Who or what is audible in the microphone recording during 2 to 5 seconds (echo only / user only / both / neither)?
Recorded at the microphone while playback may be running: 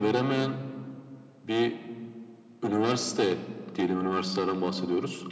echo only